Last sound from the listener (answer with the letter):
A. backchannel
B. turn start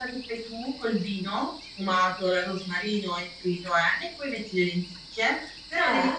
A